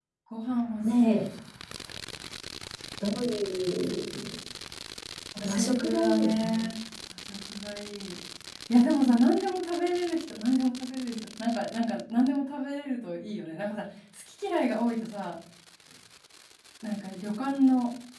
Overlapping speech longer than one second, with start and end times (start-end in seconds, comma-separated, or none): 5.4-6.6